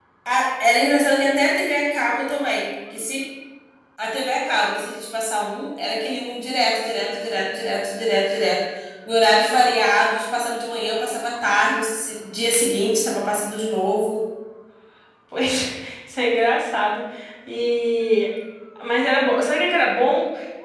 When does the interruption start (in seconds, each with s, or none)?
none